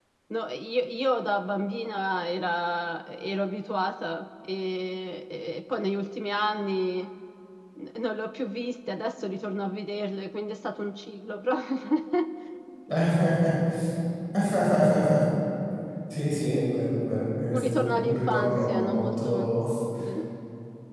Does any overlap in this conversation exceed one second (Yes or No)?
Yes